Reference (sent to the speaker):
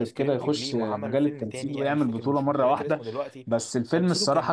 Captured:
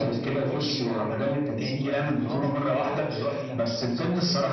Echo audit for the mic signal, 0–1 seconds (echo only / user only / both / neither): echo only